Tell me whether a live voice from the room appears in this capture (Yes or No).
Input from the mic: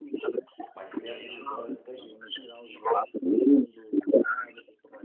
Yes